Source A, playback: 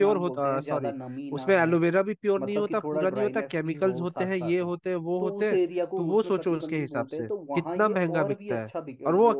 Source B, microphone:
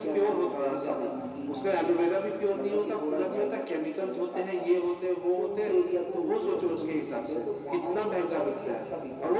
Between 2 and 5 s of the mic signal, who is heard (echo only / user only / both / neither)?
echo only